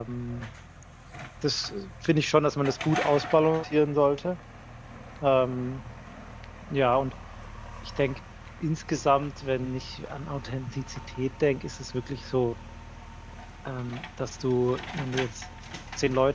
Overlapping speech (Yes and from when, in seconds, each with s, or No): No